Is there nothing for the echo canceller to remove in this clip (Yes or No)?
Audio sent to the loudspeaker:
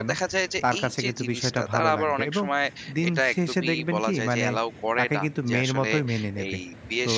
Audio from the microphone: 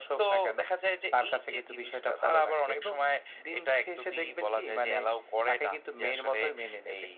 No